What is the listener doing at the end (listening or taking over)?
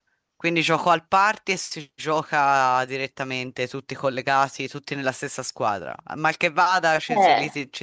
listening